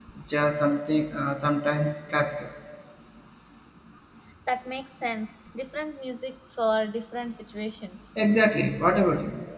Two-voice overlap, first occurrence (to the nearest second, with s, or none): none